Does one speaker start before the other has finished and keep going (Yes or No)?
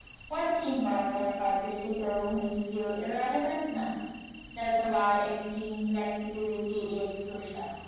No